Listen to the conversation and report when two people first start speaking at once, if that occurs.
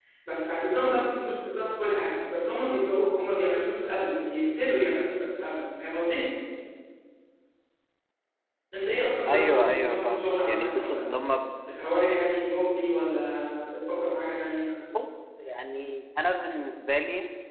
9.3 s

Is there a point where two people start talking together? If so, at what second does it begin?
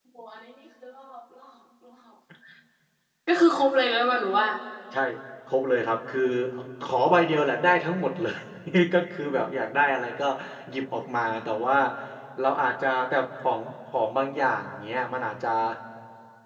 none

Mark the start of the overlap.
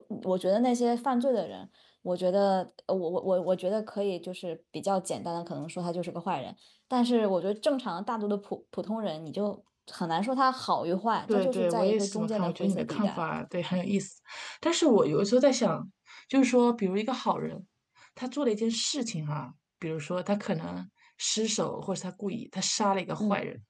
11.3 s

